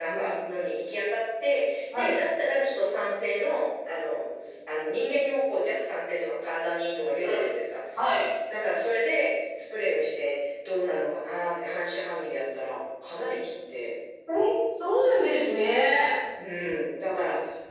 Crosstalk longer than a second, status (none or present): none